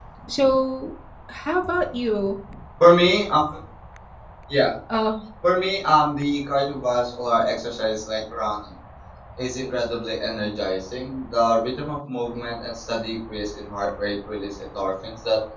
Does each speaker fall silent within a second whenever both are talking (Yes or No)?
Yes